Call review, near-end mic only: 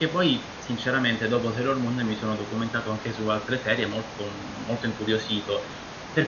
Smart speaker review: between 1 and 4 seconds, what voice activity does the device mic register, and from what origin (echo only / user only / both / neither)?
user only